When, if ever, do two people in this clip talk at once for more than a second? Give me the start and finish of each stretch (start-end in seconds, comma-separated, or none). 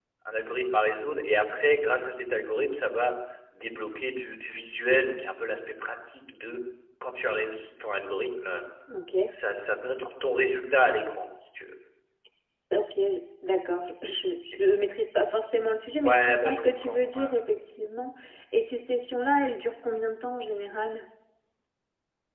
16.0-17.3